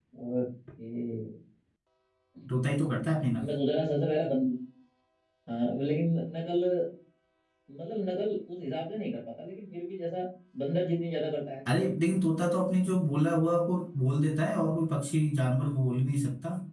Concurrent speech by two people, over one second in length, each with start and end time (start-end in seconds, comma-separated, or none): none